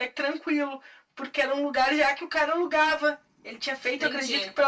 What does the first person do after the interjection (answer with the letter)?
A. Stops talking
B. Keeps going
B